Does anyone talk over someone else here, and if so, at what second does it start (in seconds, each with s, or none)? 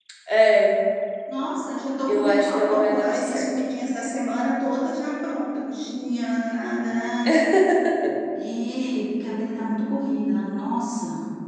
2.1 s